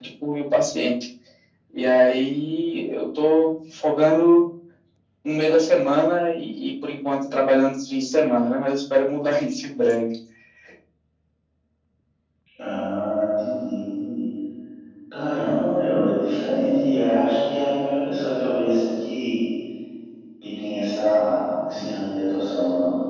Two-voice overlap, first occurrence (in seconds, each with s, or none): none